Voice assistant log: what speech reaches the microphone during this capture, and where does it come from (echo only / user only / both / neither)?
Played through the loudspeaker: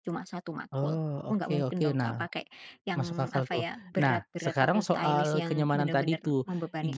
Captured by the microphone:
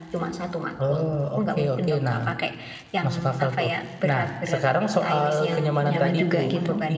both